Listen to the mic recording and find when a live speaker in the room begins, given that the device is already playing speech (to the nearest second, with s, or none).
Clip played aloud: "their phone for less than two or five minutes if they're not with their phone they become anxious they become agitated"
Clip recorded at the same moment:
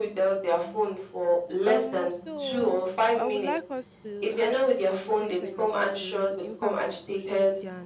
2 s